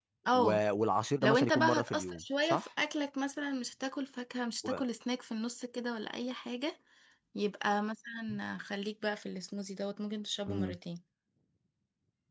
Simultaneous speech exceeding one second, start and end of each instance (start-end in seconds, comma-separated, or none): 1.2-2.7